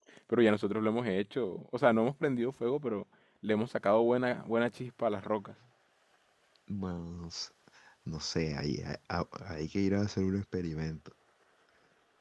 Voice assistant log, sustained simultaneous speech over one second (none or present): none